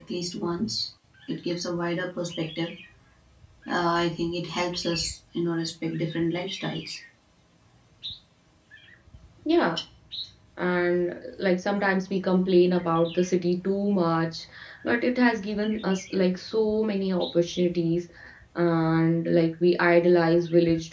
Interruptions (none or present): none